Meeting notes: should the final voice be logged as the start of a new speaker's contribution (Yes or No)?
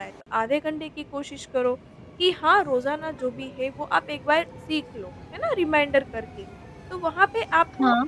No